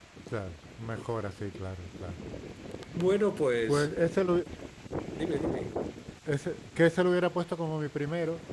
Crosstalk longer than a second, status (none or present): none